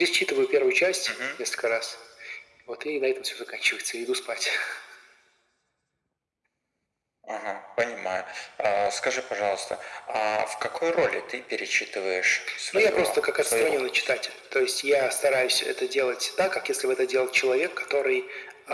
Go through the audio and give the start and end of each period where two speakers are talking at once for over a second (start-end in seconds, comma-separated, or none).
12.7-14.1